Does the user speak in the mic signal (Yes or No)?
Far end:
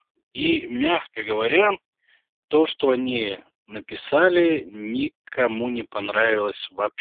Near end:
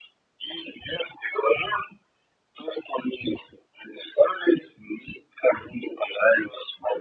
No